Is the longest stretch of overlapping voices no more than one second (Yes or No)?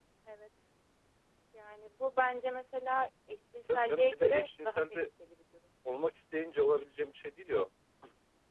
No